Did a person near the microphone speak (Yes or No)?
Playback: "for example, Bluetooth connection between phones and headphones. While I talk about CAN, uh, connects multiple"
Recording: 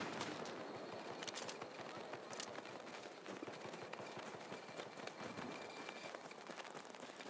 No